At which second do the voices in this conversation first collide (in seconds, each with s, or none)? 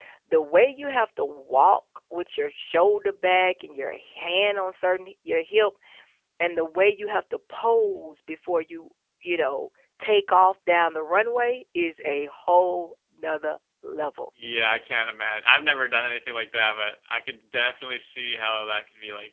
none